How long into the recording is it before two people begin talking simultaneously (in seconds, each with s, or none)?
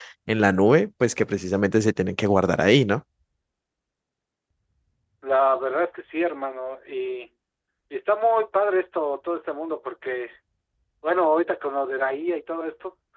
none